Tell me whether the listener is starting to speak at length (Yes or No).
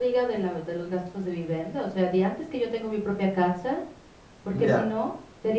No